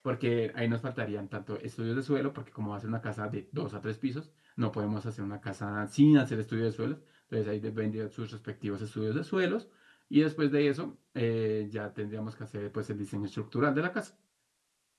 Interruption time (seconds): none

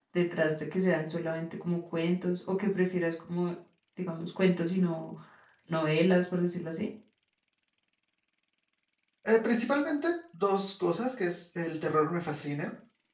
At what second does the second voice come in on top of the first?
none

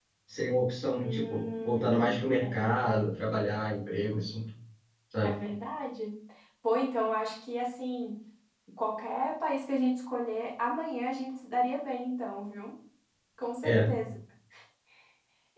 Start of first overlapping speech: 1.0 s

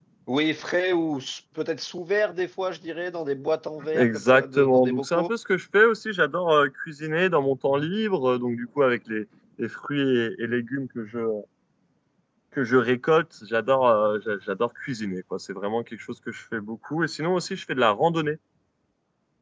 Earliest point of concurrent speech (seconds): 3.9 s

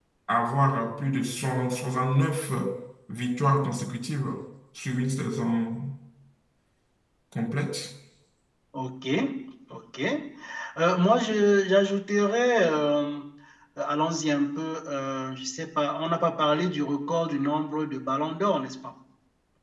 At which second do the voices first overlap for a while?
none

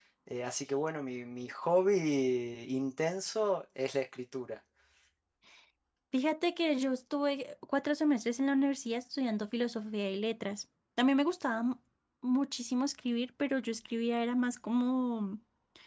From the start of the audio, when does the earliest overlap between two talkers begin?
none

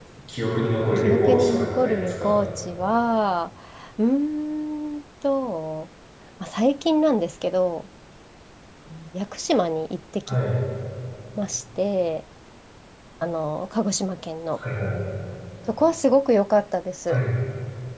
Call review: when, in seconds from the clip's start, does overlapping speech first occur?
1.0 s

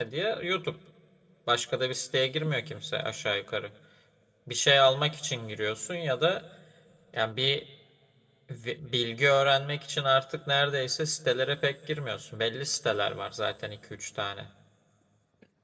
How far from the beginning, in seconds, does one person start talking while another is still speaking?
none

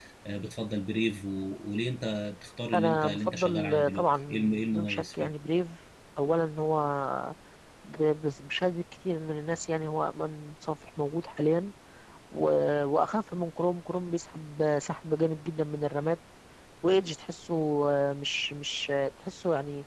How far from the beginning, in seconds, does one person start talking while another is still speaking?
2.7 s

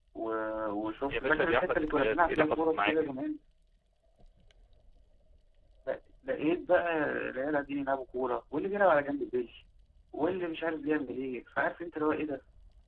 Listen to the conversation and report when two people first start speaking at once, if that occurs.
1.1 s

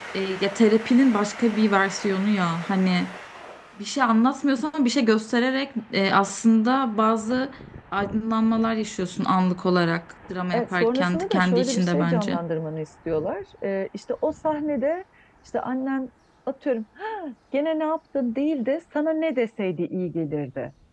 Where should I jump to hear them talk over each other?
10.5 s

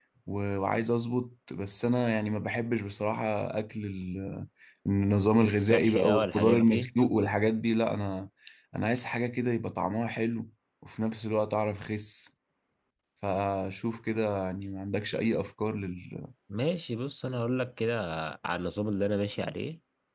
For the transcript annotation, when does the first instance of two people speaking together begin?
5.4 s

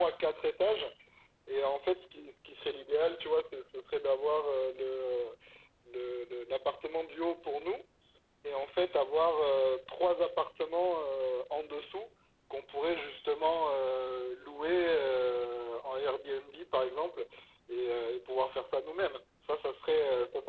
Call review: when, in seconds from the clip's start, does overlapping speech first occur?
none

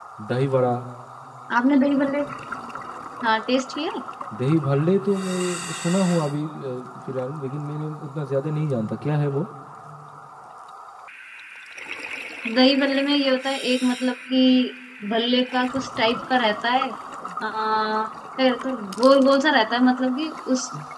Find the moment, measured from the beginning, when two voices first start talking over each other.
none

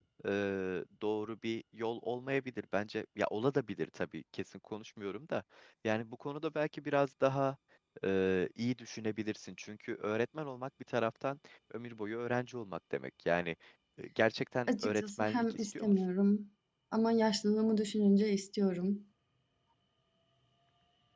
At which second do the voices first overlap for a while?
14.7 s

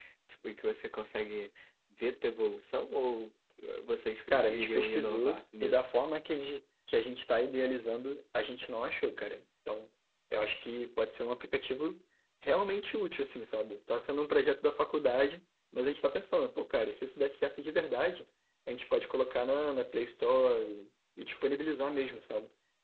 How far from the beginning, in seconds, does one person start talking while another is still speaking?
4.3 s

